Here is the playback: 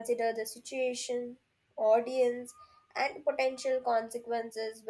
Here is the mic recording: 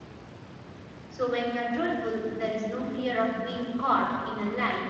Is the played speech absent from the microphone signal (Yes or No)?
Yes